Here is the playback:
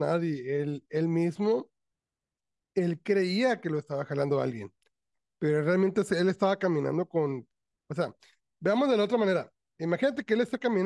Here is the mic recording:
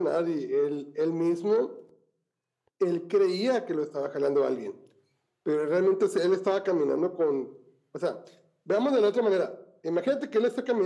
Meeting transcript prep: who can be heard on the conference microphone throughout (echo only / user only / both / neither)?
echo only